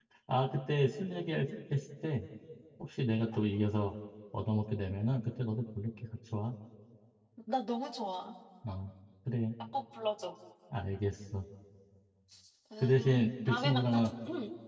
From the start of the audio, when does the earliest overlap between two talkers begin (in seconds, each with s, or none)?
12.8 s